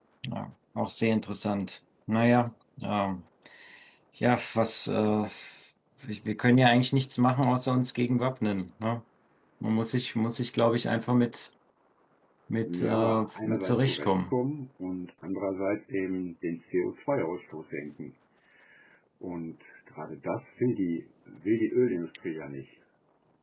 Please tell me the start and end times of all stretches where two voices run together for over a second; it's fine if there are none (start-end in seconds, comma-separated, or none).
12.7-14.3